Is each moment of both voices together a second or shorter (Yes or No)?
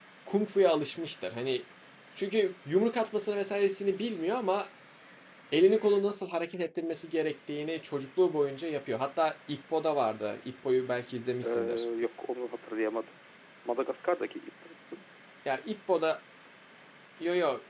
Yes